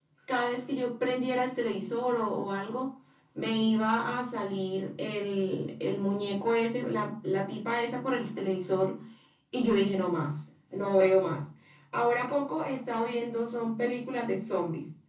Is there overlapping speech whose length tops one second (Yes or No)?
No